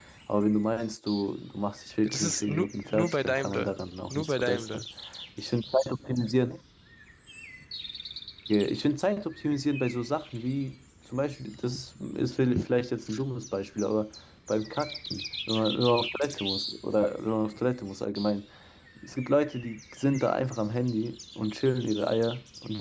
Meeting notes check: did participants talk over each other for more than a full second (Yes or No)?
Yes